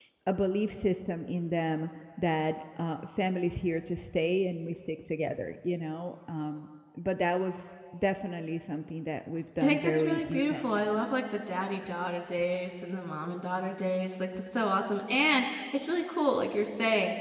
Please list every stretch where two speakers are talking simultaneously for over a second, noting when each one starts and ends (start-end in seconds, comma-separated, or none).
9.6-10.9